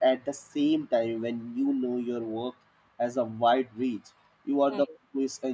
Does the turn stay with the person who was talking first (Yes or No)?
Yes